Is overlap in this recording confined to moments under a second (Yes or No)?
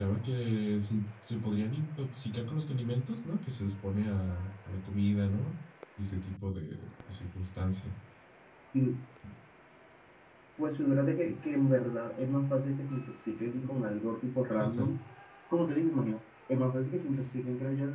Yes